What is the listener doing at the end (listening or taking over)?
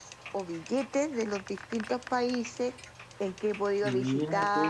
listening